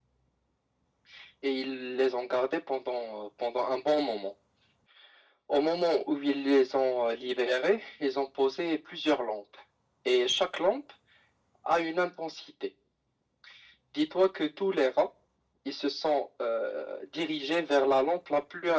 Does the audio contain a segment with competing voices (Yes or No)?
No